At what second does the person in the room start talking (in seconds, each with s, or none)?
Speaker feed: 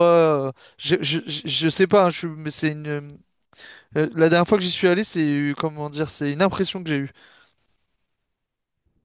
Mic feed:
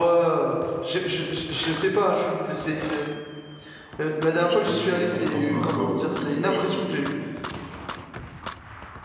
4.3 s